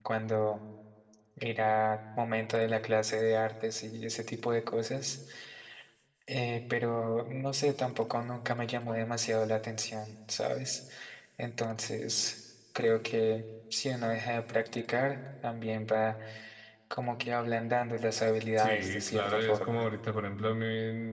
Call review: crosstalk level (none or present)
present